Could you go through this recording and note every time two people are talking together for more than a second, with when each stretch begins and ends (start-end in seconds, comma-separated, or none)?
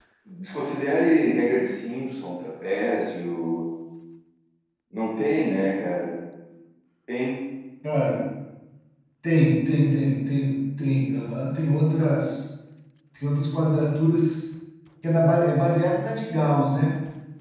none